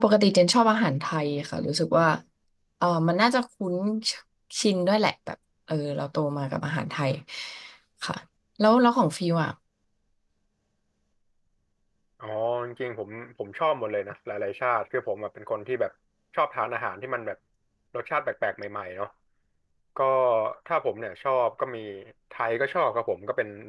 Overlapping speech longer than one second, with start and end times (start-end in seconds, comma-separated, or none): none